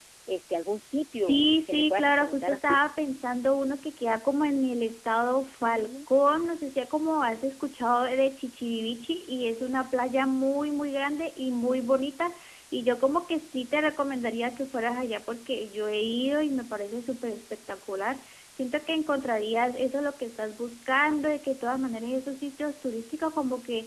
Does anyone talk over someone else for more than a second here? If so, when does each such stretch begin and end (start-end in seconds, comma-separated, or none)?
1.2-2.8